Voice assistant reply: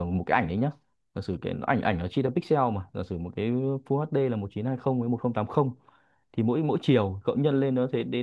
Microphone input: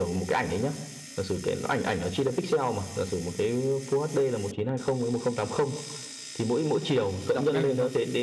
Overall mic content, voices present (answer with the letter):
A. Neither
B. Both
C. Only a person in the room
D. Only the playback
B